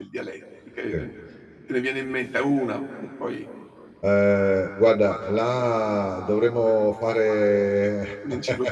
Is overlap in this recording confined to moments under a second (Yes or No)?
Yes